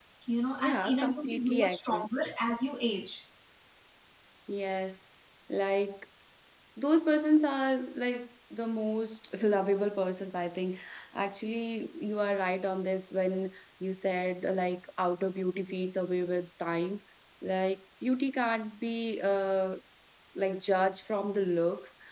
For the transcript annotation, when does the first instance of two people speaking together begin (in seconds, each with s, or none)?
0.6 s